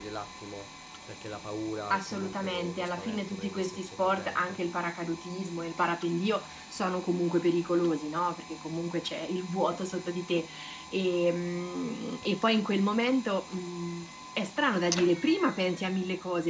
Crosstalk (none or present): present